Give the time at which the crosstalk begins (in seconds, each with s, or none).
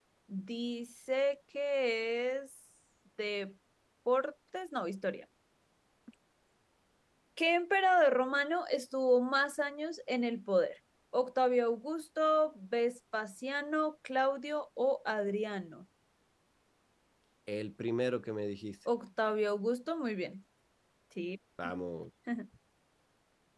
none